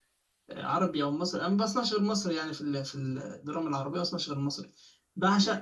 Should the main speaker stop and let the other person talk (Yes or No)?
No